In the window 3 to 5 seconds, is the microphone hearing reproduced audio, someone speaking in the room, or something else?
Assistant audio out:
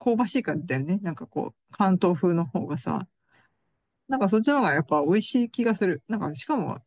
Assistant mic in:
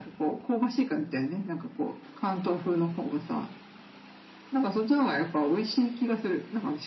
echo only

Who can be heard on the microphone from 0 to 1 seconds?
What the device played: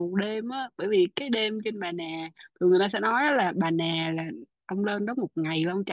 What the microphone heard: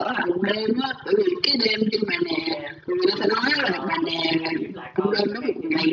echo only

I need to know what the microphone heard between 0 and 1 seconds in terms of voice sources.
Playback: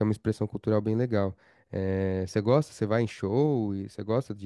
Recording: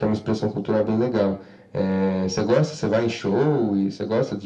echo only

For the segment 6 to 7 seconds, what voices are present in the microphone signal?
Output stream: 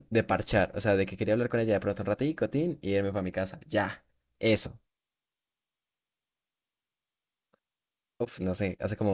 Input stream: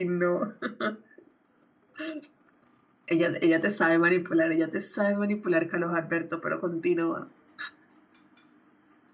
user only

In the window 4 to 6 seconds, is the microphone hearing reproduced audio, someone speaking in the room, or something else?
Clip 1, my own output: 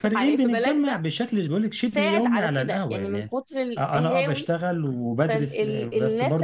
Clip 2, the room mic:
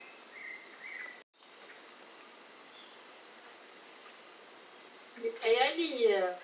user only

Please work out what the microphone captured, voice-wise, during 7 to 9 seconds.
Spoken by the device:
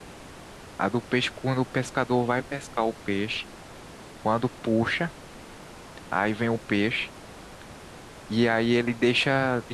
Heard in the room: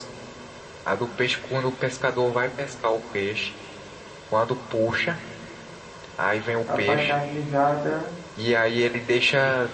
both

